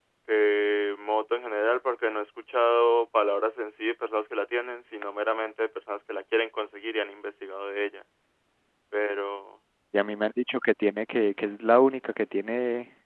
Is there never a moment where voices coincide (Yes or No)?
Yes